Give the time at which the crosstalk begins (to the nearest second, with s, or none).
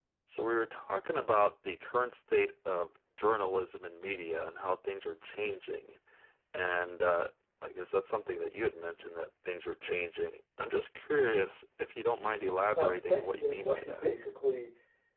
13 s